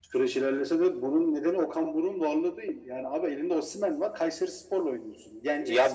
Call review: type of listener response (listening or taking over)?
taking over